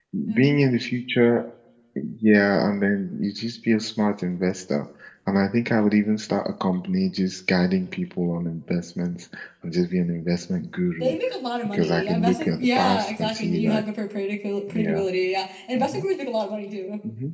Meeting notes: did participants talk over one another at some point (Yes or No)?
Yes